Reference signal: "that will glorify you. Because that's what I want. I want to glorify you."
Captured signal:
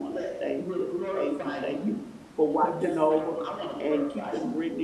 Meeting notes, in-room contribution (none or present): present